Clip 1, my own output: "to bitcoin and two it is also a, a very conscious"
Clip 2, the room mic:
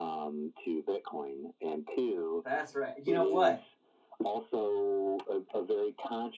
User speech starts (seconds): 2.4 s

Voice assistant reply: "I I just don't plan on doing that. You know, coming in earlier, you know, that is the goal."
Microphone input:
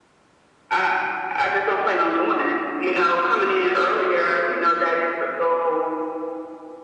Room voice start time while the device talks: none

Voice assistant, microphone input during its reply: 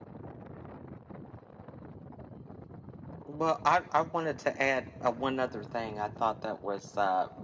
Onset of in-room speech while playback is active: 3.3 s

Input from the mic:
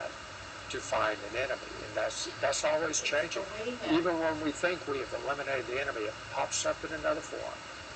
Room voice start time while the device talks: 2.9 s

